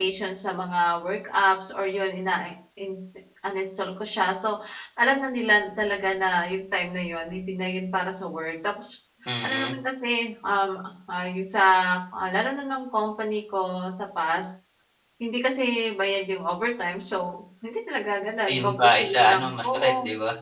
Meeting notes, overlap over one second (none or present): present